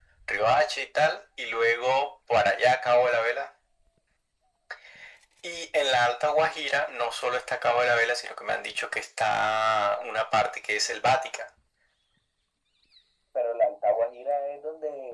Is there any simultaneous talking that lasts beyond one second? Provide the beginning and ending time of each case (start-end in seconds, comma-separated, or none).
none